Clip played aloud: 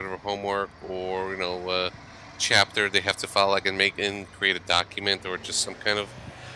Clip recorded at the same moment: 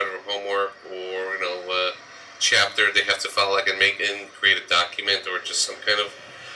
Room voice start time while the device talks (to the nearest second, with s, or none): none